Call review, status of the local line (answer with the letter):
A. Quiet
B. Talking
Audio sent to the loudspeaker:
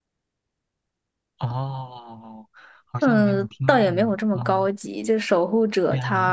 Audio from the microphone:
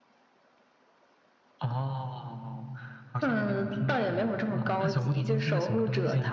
B